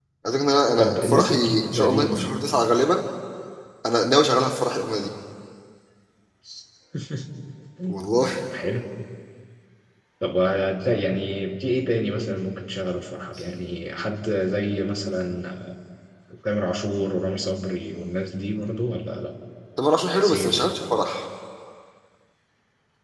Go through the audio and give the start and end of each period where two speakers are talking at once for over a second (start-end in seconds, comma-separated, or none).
0.8-2.3